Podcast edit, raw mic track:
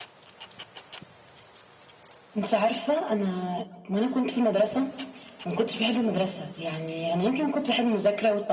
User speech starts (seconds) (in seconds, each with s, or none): none